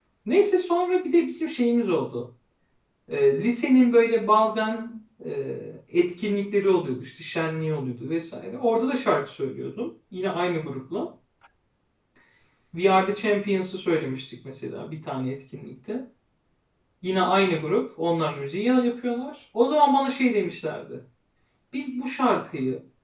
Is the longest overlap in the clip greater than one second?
No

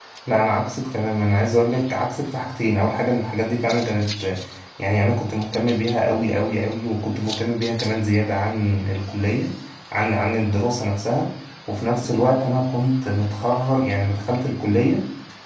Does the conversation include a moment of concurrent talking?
No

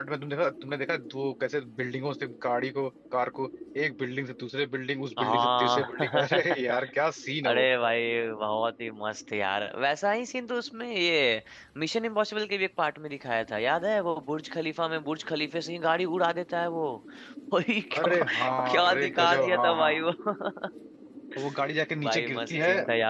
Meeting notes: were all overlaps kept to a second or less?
No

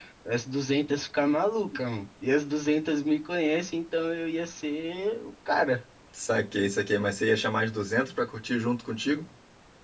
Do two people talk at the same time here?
No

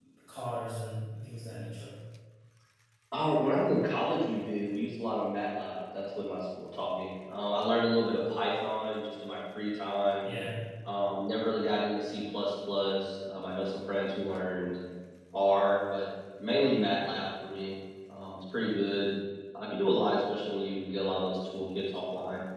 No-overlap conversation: Yes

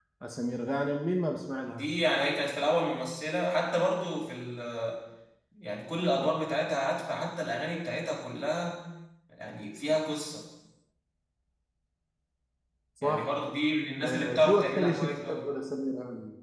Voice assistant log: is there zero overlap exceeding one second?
No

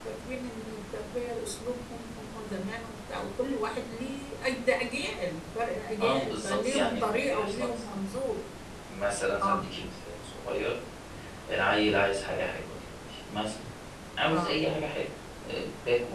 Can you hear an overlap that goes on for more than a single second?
Yes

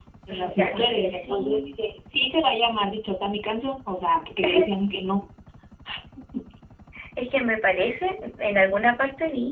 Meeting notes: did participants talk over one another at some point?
Yes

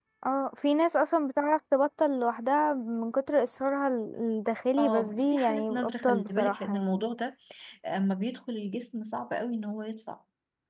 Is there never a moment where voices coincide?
No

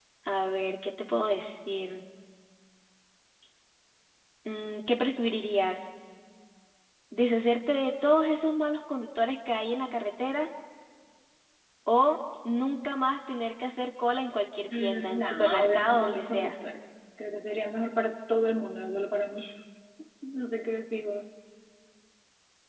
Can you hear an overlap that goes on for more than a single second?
Yes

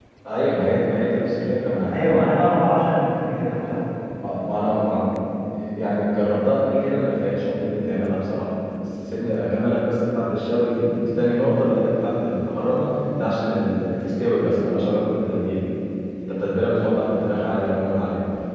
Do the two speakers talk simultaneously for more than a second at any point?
No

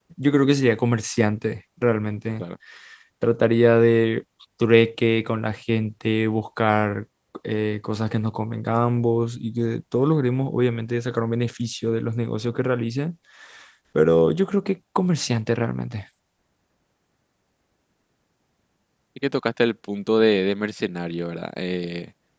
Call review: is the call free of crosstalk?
Yes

